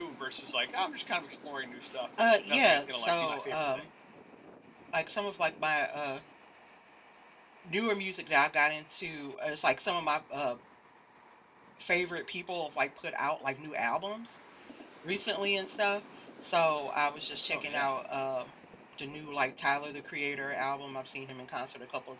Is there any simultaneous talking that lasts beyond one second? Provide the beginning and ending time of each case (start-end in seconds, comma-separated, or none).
2.2-3.8